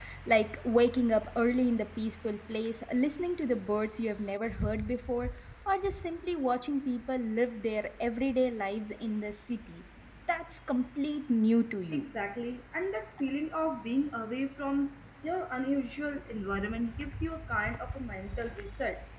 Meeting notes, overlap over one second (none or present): none